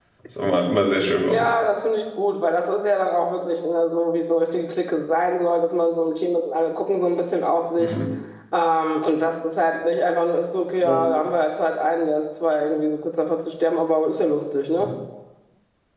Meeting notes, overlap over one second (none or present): none